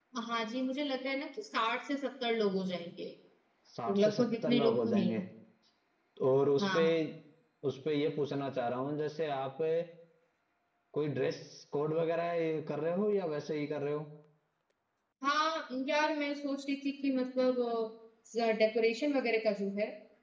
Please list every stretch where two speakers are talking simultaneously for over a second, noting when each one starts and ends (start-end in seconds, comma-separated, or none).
3.9-5.1